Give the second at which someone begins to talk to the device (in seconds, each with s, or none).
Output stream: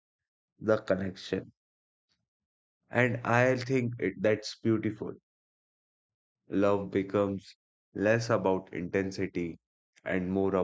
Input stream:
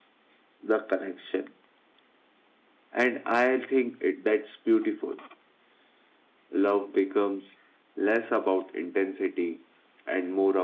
none